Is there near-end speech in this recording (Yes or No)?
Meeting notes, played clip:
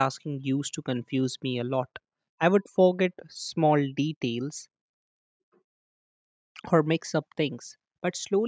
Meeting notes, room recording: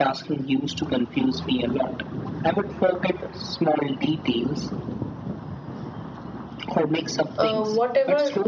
Yes